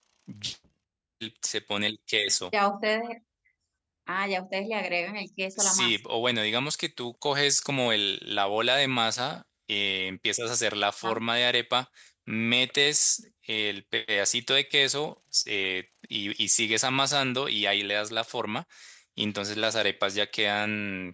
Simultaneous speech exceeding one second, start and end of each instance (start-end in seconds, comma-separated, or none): none